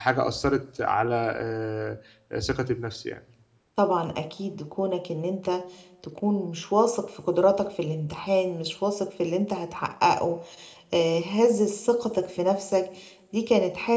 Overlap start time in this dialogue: none

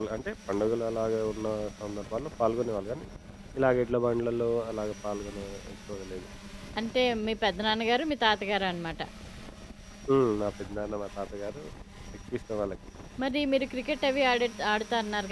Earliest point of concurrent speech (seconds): none

